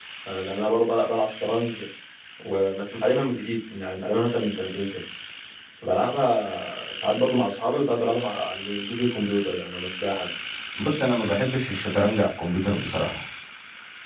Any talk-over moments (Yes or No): No